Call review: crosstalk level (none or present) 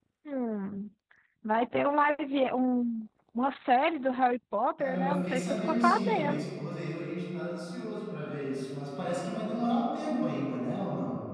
present